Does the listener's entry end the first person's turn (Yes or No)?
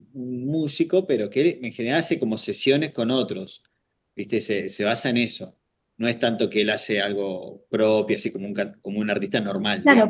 Yes